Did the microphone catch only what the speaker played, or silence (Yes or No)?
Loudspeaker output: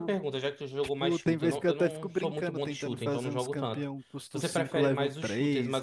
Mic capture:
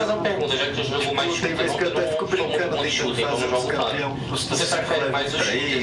Yes